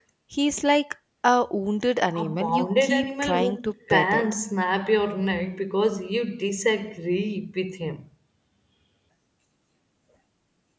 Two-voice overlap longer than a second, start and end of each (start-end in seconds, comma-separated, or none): 2.1-4.2